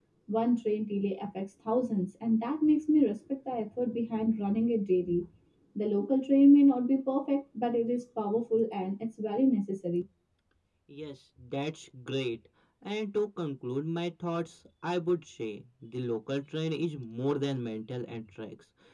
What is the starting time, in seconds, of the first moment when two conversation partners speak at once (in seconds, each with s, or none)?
none